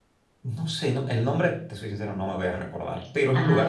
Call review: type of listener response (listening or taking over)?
listening